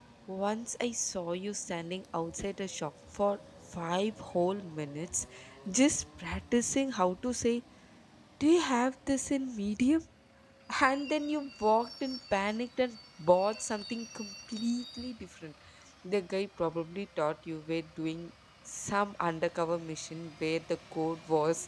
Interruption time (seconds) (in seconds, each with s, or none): none